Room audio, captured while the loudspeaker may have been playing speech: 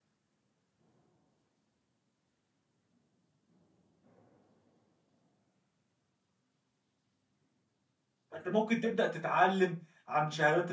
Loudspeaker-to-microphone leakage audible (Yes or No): No